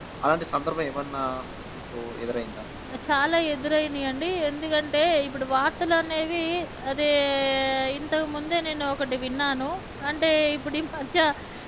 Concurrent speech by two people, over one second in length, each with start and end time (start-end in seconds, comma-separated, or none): none